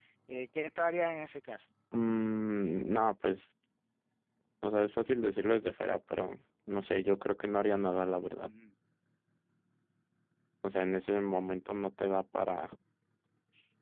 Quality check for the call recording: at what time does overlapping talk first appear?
none

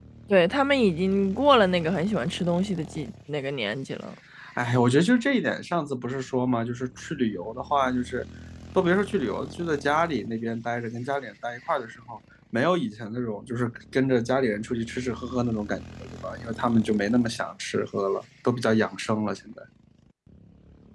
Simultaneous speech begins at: none

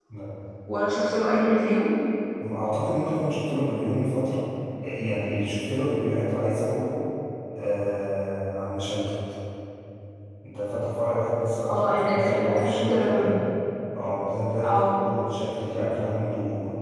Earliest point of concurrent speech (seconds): 12 s

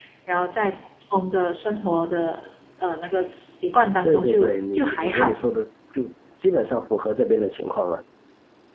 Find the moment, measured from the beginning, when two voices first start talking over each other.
4 s

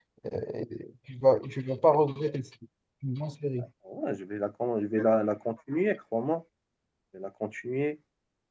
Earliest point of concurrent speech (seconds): none

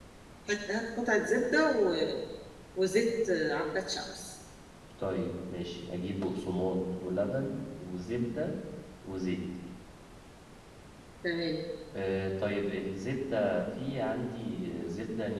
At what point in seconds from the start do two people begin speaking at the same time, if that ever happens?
none

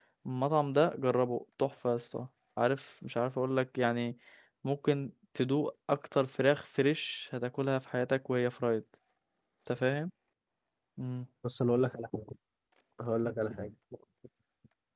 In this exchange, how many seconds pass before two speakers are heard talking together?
none

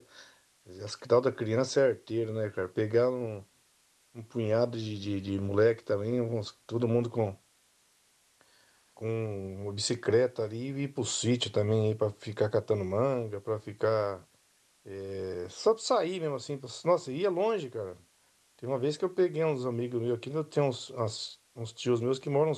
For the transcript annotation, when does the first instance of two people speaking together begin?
none

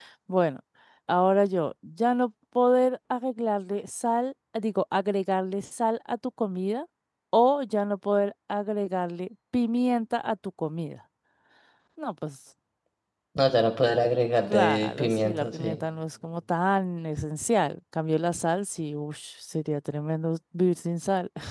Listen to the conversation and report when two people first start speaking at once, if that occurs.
15 s

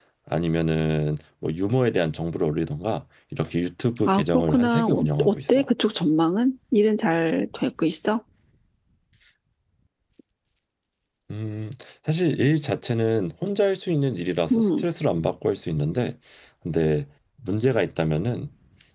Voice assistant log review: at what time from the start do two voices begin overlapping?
4 s

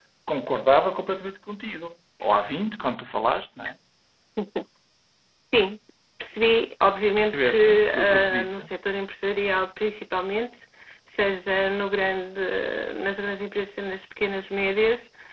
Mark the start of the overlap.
7 s

